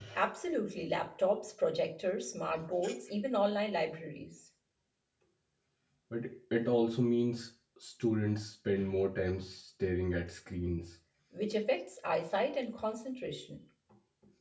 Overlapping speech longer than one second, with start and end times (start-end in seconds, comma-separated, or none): none